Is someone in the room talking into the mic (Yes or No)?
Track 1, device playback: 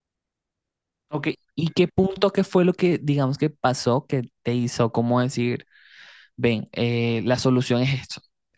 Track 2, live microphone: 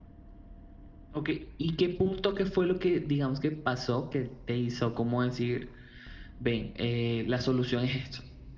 No